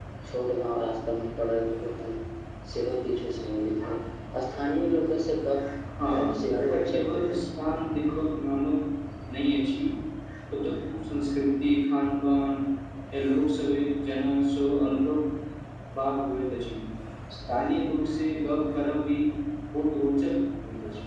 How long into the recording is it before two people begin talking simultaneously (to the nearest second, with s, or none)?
6 s